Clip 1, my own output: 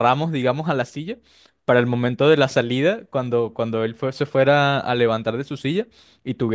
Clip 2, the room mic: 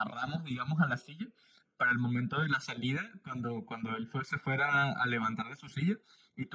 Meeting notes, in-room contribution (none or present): none